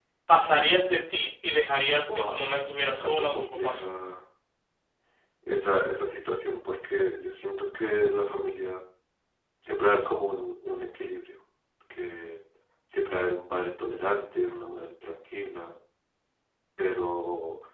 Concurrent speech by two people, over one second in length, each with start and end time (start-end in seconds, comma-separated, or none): 2.1-3.9